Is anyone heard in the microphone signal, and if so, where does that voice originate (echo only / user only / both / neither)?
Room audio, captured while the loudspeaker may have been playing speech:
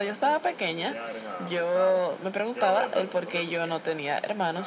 both